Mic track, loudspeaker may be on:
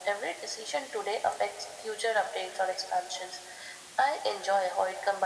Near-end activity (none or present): none